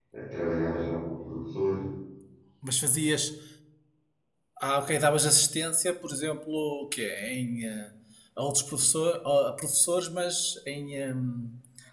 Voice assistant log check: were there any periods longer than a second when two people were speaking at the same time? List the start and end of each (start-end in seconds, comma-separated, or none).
none